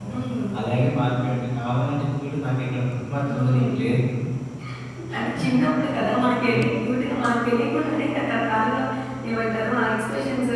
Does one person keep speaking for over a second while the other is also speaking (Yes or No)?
No